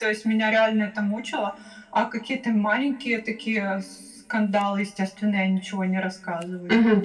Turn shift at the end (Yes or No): Yes